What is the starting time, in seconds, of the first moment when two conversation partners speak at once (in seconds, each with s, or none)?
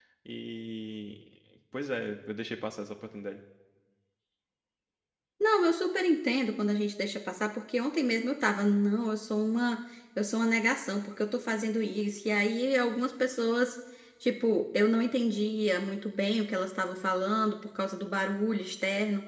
none